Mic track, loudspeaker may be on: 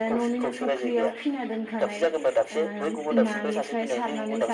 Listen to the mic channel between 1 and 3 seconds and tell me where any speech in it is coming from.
both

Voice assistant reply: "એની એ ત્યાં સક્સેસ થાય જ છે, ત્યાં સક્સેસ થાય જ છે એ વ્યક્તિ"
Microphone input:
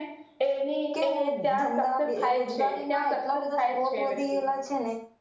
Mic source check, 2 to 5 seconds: both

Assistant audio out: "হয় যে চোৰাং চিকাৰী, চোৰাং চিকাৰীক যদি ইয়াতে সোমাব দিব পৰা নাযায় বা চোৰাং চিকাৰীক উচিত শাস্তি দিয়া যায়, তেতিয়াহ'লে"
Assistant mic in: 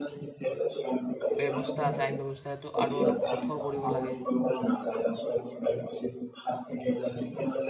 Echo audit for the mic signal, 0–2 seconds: both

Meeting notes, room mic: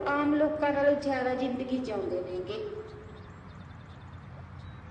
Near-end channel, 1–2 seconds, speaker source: echo only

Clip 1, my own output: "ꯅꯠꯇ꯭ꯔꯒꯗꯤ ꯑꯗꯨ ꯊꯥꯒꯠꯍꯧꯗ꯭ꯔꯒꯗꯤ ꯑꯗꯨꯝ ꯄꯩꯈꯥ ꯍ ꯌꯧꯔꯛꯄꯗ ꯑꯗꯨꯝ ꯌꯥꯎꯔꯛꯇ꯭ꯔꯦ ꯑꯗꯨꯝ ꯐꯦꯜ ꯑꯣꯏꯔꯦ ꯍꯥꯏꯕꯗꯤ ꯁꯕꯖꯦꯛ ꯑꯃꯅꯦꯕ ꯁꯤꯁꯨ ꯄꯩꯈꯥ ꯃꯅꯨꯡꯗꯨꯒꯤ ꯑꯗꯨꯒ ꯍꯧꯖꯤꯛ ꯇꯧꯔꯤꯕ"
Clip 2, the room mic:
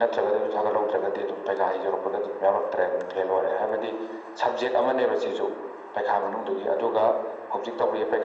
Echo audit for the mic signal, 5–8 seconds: echo only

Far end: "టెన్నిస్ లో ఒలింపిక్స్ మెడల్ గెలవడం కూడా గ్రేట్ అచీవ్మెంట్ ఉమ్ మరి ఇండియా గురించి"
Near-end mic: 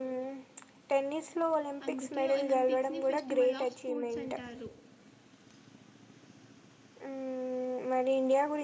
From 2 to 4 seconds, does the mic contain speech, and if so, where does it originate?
both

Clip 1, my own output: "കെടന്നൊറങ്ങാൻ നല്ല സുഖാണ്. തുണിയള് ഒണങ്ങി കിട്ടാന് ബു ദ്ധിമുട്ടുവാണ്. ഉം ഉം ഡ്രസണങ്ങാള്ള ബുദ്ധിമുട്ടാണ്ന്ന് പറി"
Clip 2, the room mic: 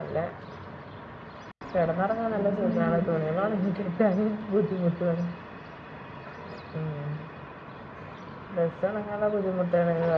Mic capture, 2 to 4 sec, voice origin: both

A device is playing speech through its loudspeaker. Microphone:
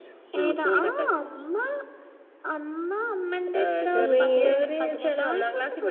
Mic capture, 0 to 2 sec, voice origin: echo only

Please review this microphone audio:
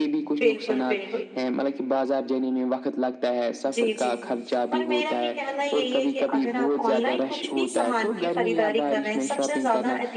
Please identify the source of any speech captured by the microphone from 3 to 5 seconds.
both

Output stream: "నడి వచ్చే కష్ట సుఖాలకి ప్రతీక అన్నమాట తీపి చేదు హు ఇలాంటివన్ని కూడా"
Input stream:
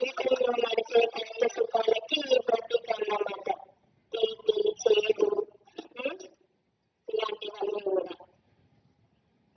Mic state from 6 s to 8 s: echo only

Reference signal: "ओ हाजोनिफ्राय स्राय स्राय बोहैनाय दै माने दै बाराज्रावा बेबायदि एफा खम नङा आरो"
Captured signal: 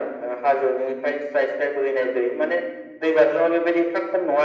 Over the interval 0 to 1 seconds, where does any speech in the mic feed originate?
echo only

